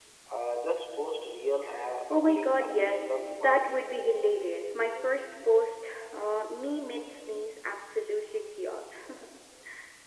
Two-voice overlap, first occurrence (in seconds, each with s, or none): 2.1 s